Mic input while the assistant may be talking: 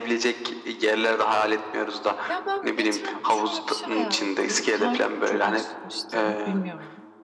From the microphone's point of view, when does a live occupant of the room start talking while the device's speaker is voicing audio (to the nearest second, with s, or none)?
2 s